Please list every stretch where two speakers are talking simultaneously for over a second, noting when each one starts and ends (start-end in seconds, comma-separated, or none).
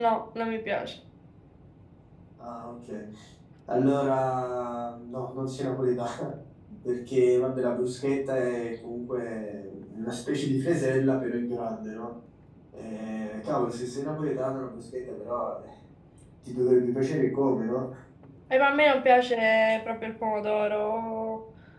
none